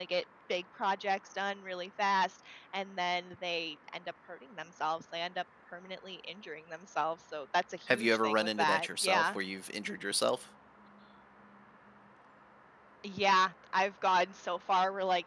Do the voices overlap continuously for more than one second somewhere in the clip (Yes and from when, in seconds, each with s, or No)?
Yes, from 7.9 s